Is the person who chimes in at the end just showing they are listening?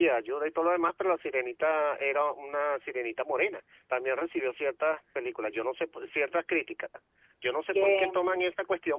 Yes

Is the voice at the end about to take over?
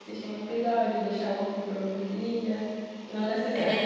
No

